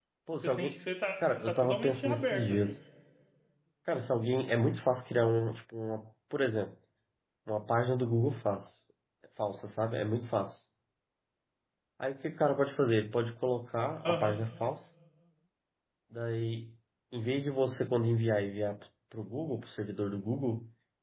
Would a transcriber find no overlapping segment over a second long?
No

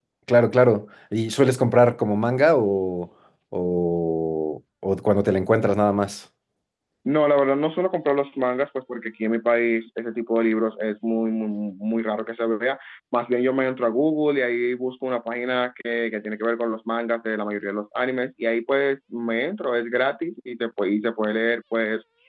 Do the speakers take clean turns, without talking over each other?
Yes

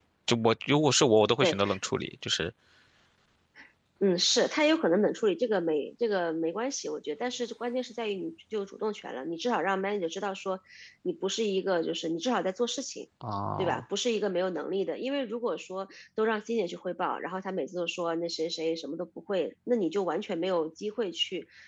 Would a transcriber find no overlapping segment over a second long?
Yes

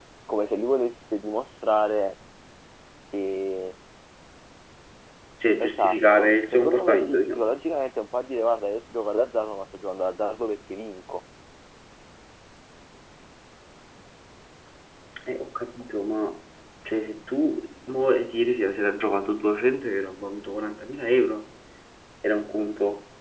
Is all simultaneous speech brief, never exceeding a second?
No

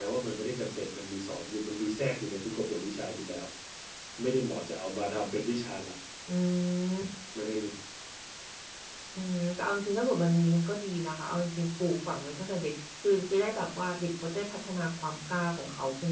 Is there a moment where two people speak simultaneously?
No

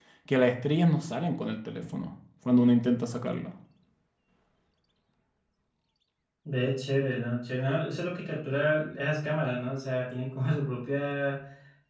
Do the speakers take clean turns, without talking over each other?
Yes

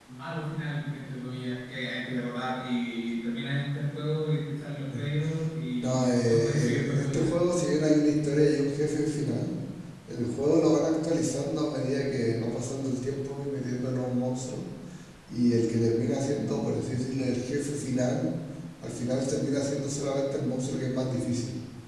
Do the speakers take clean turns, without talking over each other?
No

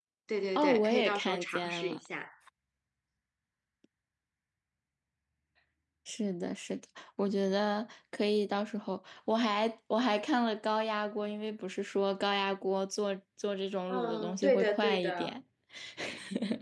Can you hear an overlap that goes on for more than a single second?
Yes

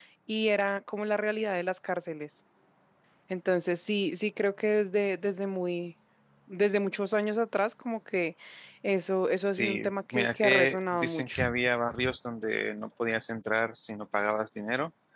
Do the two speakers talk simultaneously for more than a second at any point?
Yes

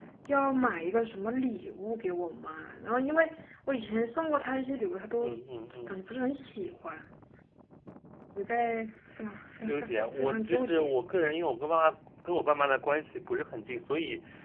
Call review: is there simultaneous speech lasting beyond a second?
Yes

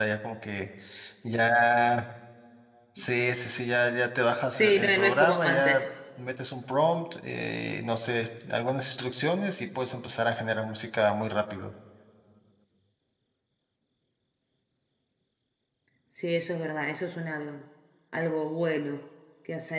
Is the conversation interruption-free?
No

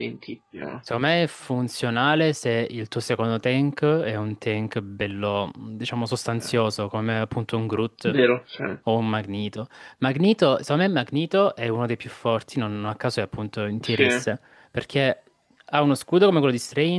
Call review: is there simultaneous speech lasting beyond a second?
No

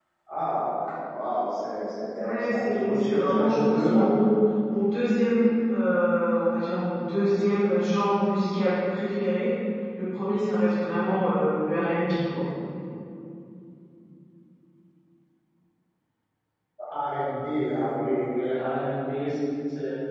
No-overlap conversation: No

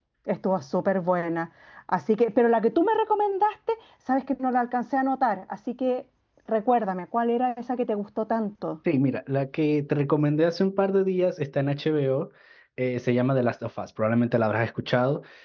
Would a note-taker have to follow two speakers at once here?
No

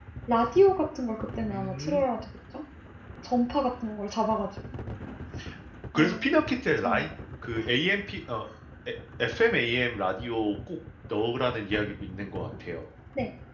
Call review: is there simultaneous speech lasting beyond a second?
No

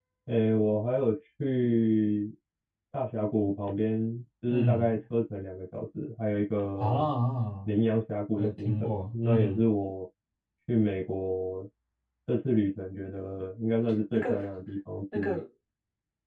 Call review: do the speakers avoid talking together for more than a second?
No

